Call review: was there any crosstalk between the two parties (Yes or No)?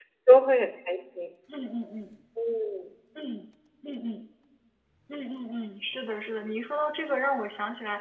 No